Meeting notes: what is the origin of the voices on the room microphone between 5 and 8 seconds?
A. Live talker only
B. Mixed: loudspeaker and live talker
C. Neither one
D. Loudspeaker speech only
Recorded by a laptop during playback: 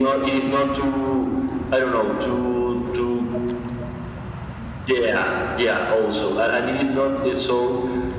D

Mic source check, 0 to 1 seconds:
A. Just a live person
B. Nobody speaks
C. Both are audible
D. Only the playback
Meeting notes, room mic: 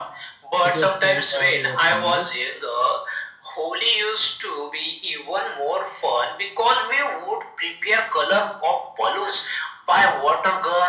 C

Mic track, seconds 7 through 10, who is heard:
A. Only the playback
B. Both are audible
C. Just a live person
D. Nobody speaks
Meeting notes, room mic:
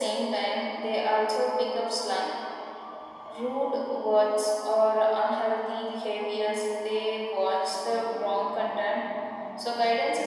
A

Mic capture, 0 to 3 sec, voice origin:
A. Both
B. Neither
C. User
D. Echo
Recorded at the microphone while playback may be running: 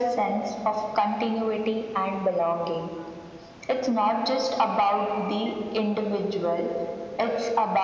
D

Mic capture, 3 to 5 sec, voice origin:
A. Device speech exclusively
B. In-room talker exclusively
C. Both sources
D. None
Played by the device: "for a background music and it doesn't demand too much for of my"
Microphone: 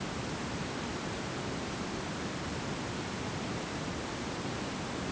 D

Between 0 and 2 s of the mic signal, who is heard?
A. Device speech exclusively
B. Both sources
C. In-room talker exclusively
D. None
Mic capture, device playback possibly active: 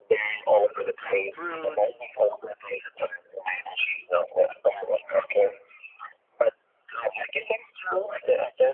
B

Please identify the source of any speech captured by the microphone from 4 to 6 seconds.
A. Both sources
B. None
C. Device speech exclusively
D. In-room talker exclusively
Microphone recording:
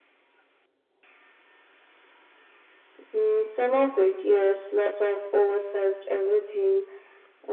C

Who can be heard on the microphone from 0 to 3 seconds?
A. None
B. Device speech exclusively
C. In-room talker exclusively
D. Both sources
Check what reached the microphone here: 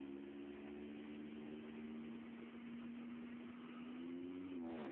A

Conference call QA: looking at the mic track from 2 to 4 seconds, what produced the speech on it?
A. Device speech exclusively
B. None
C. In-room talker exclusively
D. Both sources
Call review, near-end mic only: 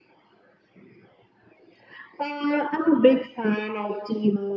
A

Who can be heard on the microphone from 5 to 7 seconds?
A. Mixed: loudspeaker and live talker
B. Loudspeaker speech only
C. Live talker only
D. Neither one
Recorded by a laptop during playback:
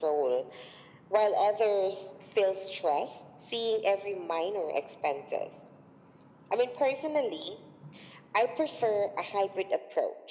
B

